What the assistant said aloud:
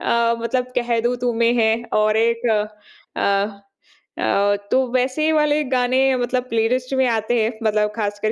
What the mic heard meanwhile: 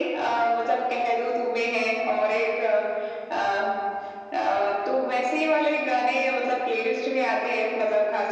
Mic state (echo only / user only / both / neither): echo only